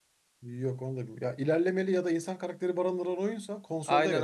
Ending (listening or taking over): taking over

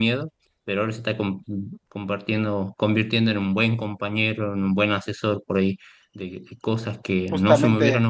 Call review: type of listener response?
listening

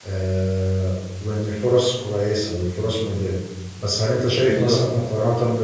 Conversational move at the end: listening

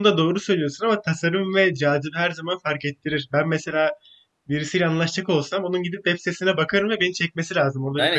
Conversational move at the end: taking over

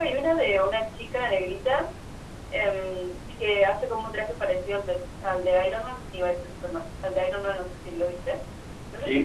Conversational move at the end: taking over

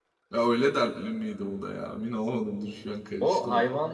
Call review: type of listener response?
taking over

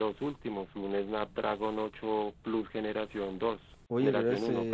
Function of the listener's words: taking over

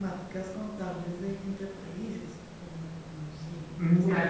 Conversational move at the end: taking over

